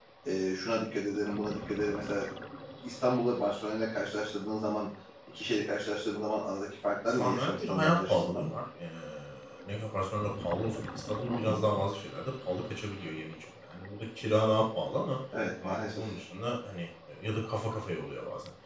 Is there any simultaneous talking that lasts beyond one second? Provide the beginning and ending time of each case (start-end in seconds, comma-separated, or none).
7.1-8.5